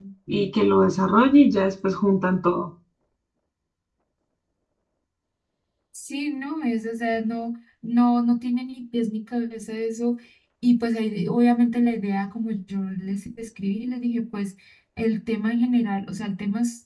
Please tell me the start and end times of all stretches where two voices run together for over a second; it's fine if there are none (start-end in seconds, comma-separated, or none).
none